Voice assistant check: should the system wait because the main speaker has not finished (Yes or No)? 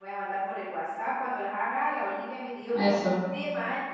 Yes